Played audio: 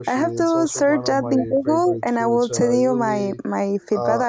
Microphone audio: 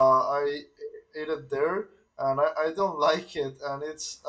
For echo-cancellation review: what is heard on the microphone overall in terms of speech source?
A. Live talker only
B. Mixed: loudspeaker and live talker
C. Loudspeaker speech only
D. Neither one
A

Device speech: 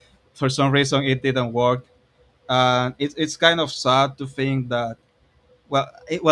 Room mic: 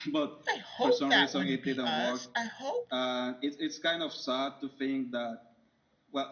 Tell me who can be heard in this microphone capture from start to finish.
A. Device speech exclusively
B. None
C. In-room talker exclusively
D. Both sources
D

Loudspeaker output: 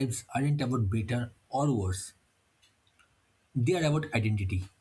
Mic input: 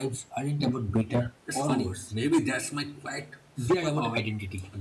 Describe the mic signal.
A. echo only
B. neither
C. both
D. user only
C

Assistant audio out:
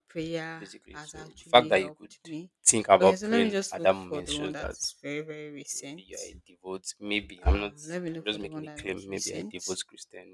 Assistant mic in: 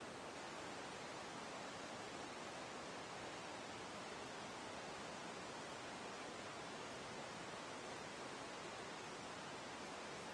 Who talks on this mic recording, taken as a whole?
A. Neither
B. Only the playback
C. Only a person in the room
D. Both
A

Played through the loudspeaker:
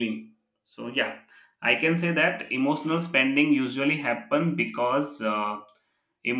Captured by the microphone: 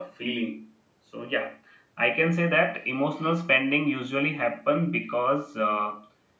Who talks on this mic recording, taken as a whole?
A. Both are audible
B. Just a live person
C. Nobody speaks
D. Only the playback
D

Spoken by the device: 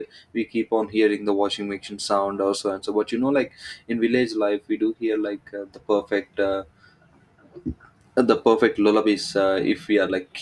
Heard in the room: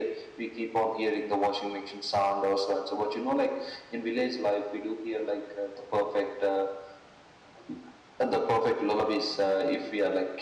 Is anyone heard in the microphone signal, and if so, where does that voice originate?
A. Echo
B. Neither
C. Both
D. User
A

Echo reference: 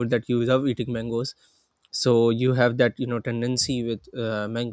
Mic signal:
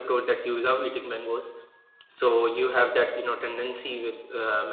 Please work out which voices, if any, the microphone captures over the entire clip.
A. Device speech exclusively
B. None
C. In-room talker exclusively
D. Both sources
A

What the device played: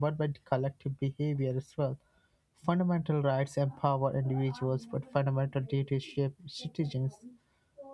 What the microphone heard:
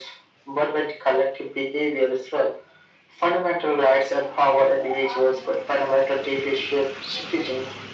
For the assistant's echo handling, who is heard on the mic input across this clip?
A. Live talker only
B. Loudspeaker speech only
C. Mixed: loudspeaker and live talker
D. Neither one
B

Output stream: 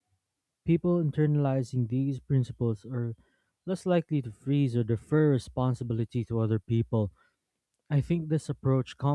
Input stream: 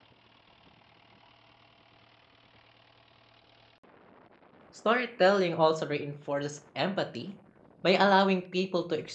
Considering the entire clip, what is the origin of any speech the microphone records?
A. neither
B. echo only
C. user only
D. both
C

